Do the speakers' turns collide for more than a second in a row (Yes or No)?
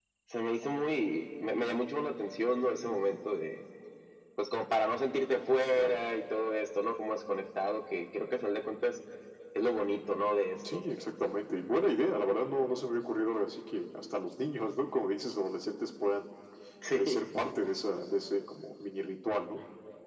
No